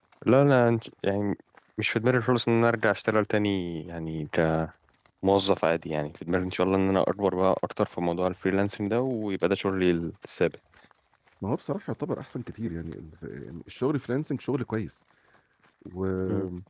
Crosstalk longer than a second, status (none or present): none